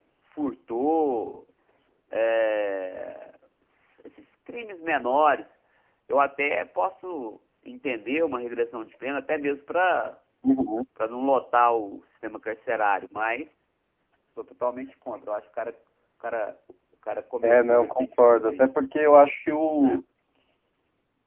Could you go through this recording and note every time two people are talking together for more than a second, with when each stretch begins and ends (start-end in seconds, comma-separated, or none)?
17.4-18.7